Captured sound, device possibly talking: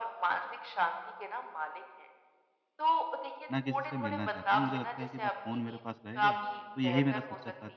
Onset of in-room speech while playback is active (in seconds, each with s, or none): 3.5 s